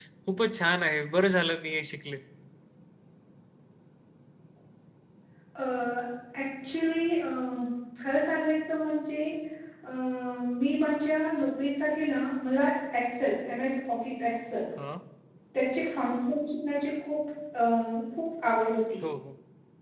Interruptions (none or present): none